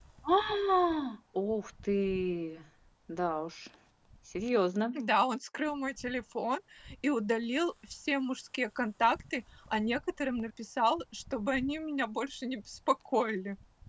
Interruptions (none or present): none